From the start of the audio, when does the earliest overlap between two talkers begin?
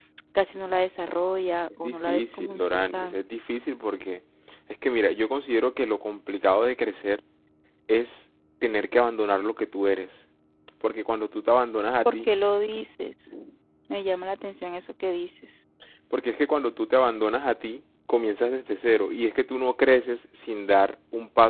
1.8 s

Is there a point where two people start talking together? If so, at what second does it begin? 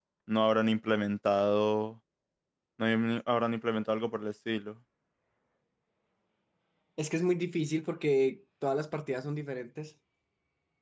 none

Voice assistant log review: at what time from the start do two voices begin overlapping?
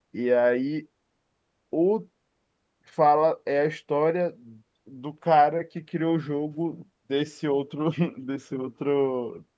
none

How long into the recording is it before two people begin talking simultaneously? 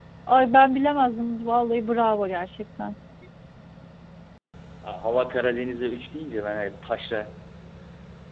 none

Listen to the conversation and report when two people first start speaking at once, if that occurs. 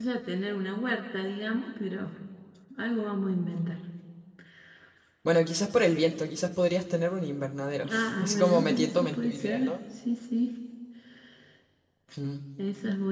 7.8 s

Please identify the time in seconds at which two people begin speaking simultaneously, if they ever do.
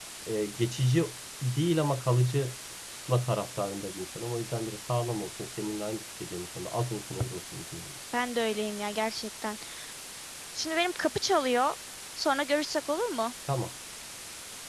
none

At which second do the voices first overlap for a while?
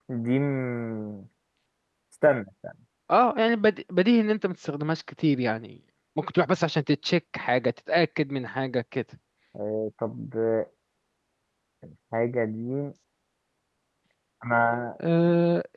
none

